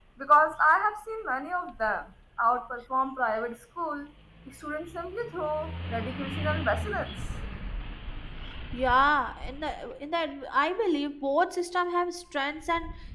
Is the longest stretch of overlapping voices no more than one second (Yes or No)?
Yes